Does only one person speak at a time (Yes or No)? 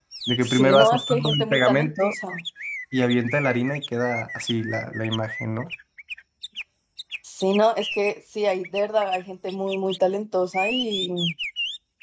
No